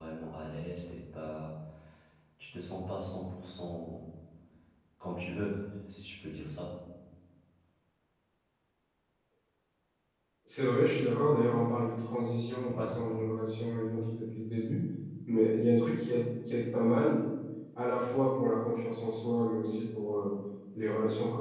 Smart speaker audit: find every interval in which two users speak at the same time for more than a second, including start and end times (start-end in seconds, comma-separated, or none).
none